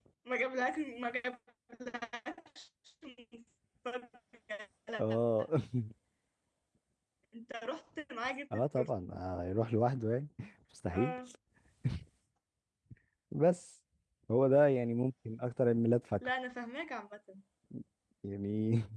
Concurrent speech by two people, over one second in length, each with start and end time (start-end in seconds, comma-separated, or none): none